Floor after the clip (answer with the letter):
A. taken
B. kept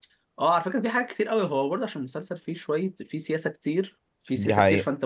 B